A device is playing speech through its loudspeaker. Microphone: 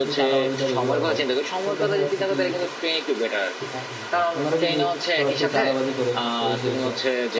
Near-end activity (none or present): present